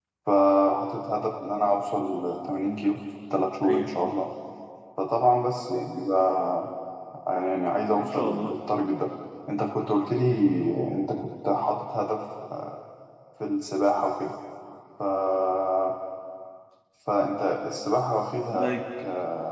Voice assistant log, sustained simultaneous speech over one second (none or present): none